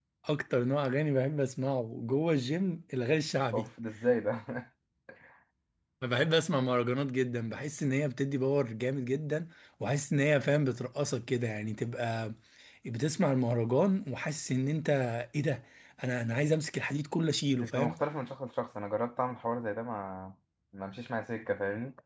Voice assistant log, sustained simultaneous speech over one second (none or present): none